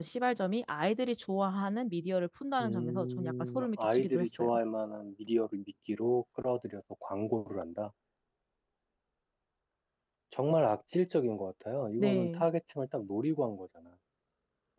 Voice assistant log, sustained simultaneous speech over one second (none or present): present